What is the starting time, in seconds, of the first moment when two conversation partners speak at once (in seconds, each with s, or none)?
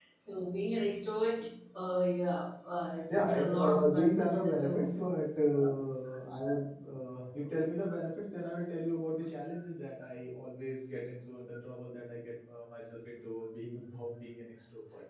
3.1 s